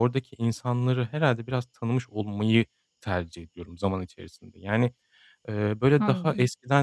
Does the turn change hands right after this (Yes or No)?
No